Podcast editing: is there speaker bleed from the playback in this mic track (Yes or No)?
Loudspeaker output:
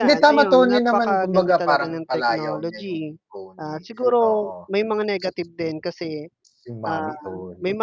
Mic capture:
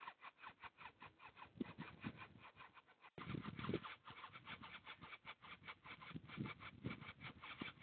No